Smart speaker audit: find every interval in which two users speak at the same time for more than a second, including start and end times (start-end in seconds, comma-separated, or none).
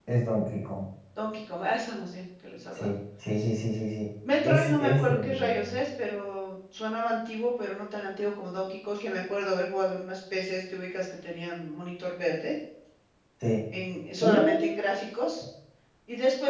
4.4-5.8